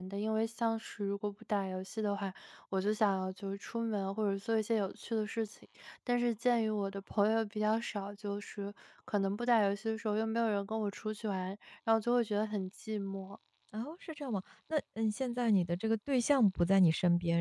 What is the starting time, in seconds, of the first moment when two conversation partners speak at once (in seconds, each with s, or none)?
none